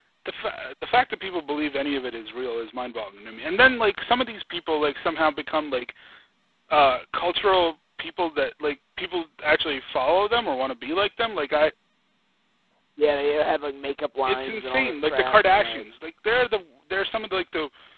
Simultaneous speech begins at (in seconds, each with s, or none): 14.3 s